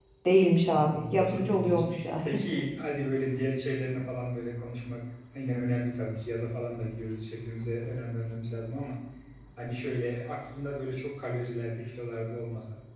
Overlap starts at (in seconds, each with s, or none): 0.7 s